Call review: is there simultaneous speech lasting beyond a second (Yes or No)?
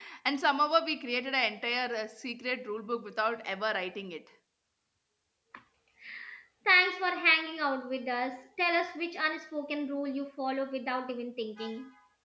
No